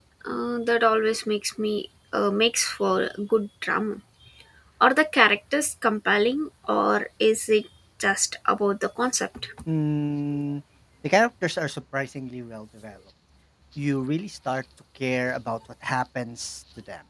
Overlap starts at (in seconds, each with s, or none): none